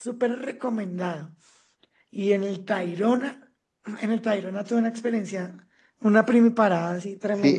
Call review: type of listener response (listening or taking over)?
taking over